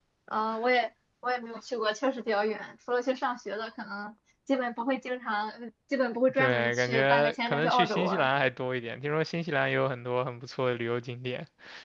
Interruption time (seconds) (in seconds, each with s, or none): 6.3 s